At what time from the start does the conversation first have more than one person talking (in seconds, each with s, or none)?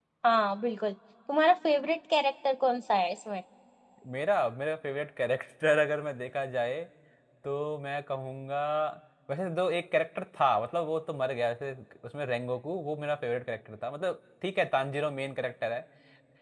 none